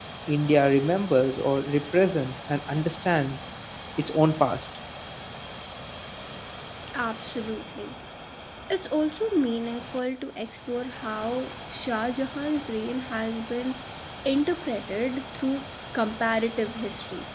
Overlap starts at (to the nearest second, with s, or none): none